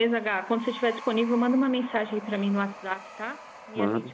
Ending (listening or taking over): listening